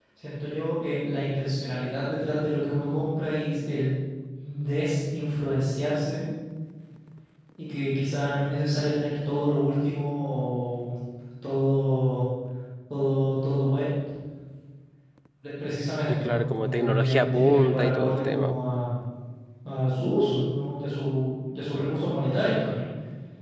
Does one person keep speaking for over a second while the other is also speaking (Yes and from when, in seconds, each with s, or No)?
Yes, from 16.1 s